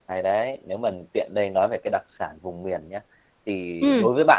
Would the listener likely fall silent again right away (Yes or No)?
Yes